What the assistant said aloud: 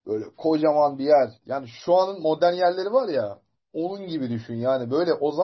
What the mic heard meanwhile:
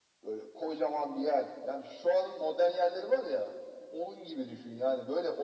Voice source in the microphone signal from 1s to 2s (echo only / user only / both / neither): echo only